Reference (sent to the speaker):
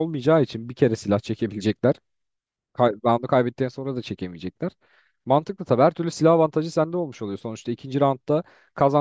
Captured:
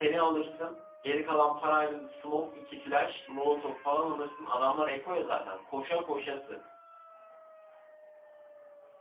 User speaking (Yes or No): Yes